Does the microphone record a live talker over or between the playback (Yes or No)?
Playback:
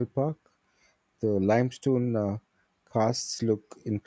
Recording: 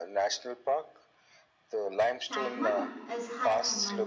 Yes